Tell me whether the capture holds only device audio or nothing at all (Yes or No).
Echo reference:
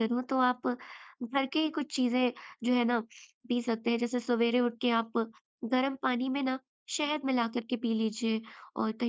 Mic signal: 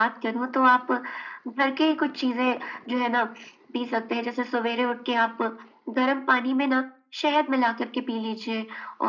Yes